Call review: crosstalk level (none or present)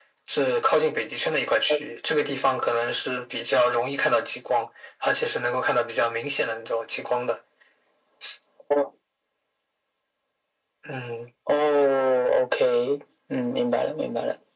none